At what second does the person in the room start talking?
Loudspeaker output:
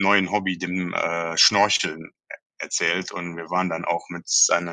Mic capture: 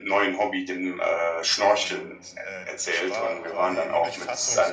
1.7 s

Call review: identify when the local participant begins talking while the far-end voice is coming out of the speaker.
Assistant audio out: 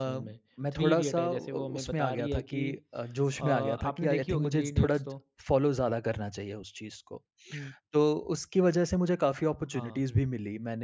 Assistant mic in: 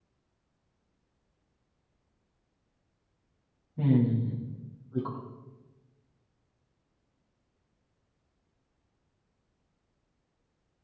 3.8 s

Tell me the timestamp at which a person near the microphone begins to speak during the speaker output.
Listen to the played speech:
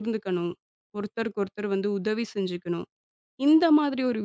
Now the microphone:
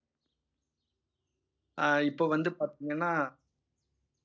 1.8 s

